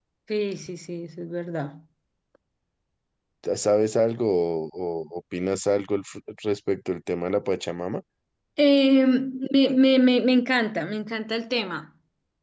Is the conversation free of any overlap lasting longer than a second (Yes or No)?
Yes